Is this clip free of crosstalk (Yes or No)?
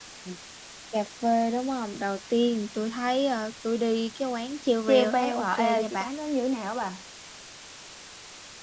No